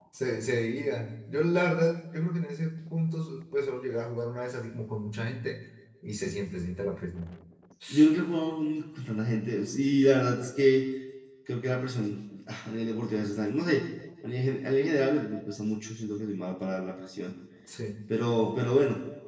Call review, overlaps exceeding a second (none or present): none